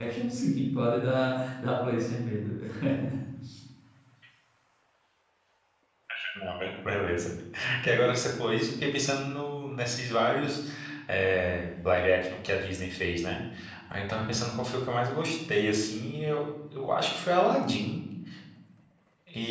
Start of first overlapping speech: none

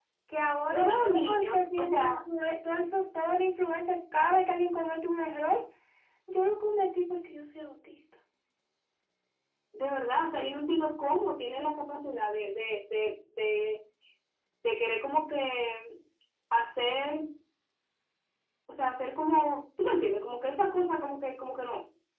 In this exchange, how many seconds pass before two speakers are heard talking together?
0.7 s

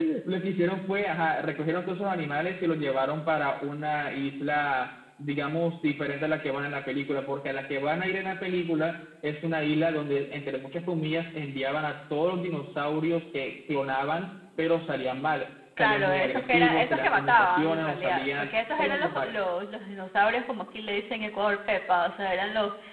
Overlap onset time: 15.8 s

